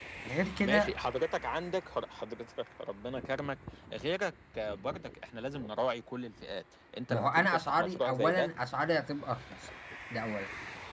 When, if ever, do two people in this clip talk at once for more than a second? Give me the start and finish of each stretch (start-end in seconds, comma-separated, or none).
7.1-8.5